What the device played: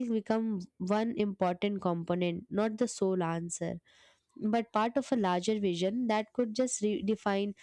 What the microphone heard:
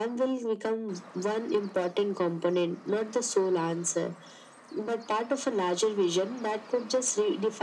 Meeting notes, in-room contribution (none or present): none